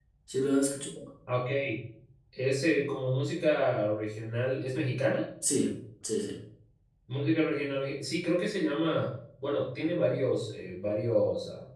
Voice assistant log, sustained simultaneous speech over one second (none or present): none